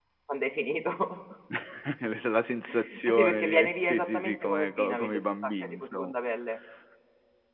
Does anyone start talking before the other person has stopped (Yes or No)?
Yes